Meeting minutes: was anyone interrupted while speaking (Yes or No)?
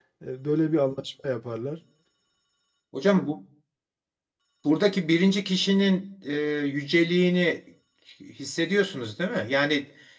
No